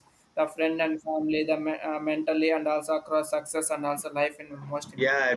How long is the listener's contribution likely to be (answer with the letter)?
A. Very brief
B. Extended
B